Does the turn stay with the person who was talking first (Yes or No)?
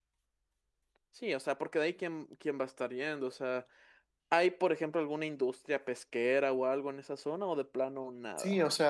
No